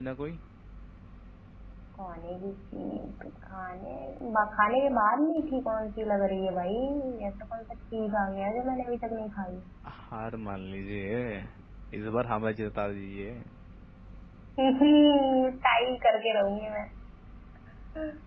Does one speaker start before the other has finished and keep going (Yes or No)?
No